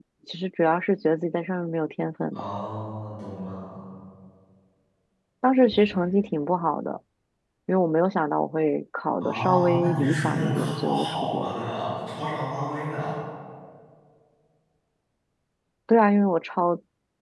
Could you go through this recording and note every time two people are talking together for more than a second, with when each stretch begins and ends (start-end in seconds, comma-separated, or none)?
9.2-11.5